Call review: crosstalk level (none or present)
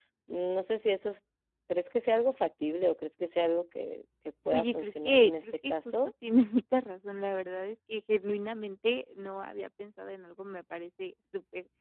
present